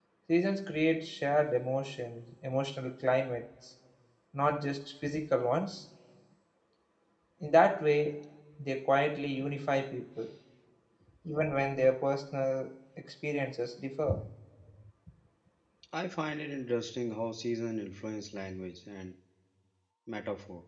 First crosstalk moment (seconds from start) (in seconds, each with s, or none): none